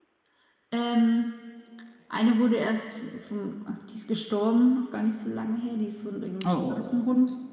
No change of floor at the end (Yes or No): Yes